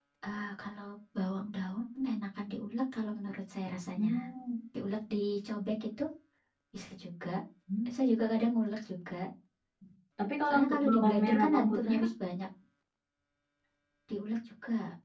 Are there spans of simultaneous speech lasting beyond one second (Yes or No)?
Yes